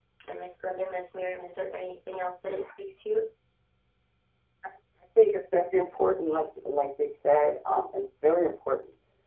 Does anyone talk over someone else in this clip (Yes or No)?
No